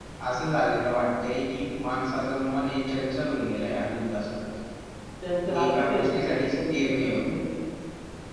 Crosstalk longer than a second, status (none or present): present